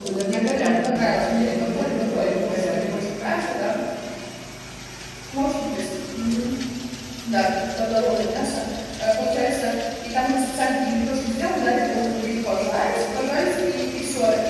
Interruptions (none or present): present